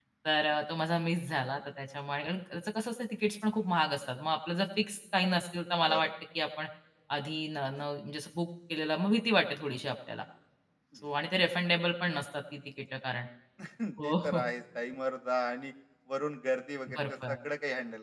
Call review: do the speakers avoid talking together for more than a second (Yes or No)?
Yes